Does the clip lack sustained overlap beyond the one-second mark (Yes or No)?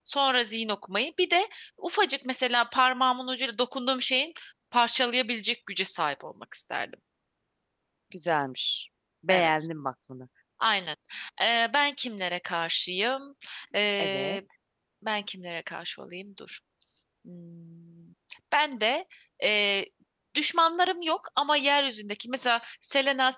Yes